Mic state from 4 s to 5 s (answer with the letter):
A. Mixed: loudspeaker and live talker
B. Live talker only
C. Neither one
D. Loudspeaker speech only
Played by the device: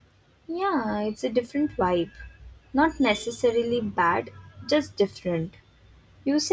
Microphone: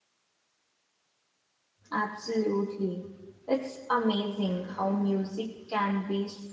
B